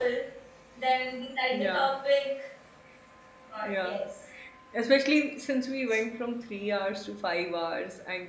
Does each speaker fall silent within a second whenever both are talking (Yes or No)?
Yes